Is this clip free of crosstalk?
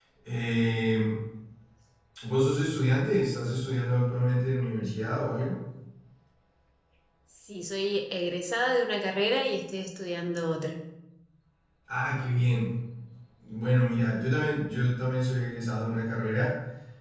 Yes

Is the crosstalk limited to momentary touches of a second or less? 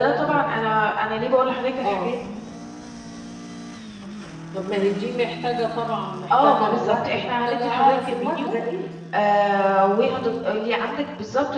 No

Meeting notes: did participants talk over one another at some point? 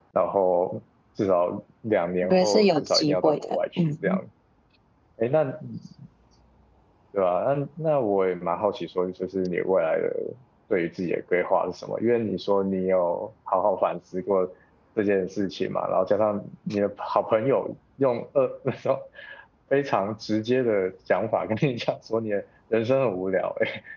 Yes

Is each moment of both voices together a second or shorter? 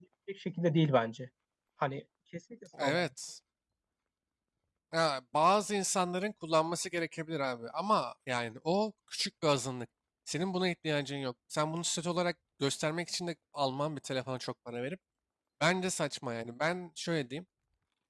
Yes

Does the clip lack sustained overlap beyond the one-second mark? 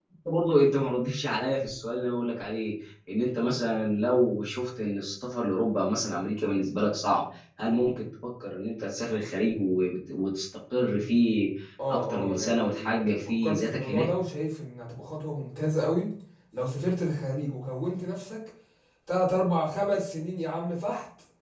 No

